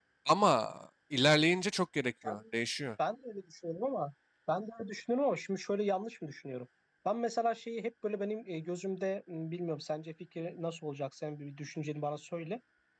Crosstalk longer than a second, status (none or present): none